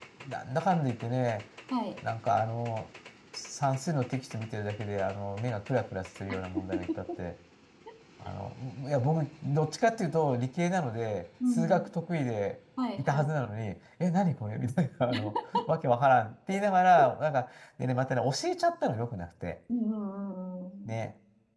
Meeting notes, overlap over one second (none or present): none